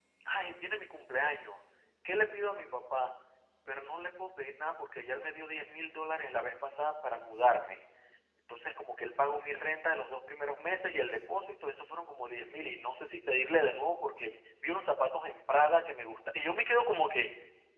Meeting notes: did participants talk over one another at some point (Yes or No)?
No